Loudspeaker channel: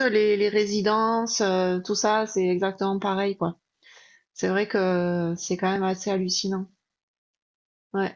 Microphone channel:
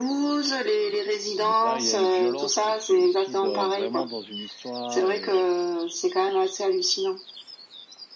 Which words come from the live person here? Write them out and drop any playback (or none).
Mais là, il y a une violence, mais c'est aussi dans- vraiment dans une histoire et